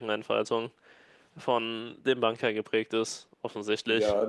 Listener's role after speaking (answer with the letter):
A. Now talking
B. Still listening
A